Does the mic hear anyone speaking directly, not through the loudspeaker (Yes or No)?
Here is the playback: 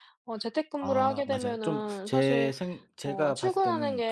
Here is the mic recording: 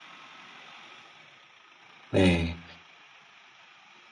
Yes